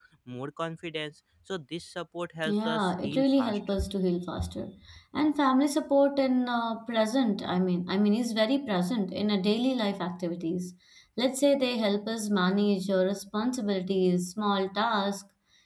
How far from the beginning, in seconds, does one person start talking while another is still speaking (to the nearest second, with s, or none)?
2 s